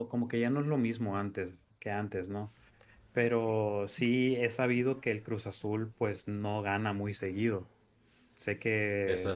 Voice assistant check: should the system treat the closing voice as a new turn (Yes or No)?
No